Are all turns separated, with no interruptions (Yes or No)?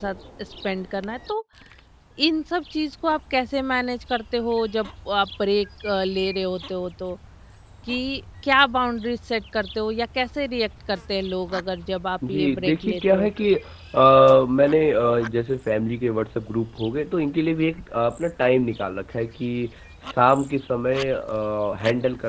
No